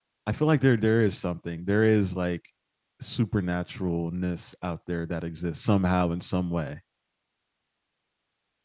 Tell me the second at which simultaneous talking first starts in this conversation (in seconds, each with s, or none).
none